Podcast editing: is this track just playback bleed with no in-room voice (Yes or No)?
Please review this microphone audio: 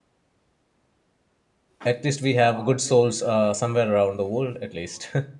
No